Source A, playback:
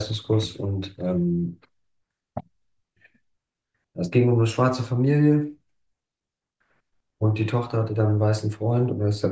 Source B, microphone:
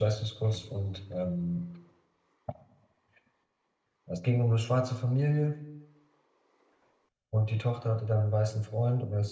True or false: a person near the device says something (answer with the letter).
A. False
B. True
A